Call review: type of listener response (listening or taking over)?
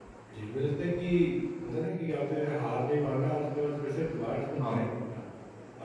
listening